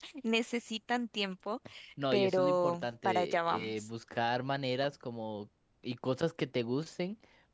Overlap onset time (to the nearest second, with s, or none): 2 s